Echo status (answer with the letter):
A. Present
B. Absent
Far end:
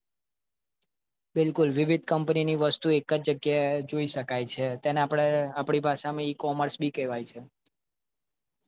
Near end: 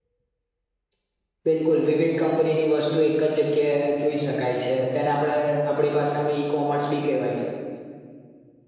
A